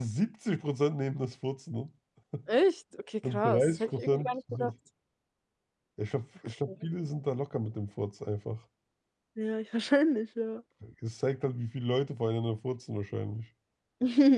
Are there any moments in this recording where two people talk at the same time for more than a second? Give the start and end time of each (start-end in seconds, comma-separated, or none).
3.2-4.7